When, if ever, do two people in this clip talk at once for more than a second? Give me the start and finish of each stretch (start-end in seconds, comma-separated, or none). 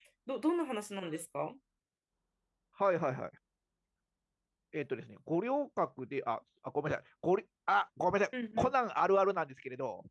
none